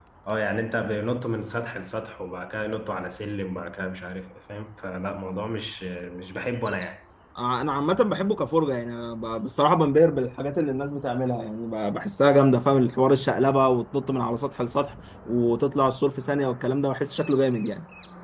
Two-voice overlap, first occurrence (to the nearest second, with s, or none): none